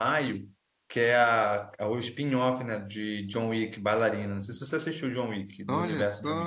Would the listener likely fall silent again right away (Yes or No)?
No